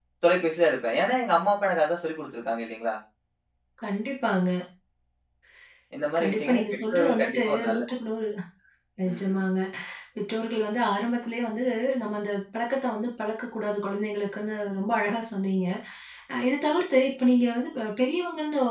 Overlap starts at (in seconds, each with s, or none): 6.2 s